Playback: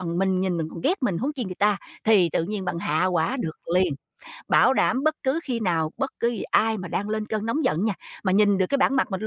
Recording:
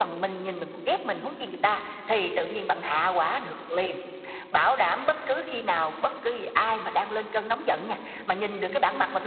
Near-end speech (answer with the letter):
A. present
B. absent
B